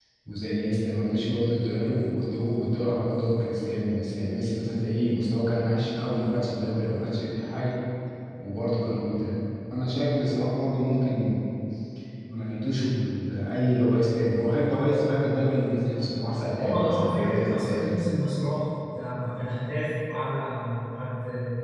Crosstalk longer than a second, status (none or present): present